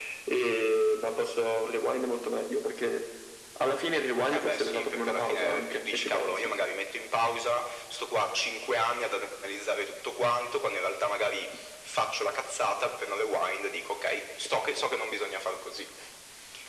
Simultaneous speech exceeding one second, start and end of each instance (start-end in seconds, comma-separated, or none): 4.3-6.5